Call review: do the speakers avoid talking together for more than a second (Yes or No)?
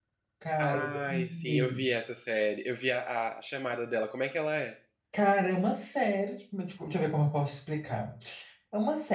No